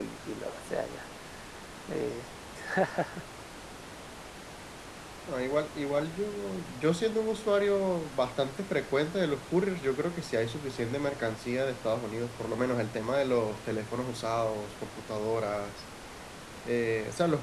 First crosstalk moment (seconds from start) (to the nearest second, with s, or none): none